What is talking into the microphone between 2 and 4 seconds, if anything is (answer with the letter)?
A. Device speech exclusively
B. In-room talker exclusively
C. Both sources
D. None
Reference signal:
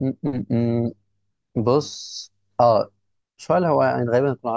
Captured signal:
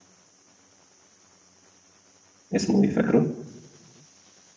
B